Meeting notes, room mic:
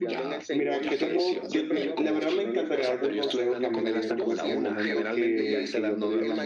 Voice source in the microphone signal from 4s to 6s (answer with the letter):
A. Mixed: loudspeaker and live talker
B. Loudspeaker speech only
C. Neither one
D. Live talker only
A